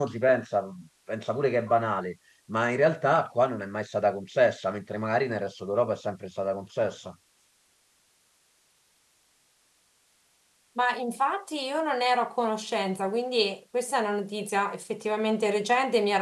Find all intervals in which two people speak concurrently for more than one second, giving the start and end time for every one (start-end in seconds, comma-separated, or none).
none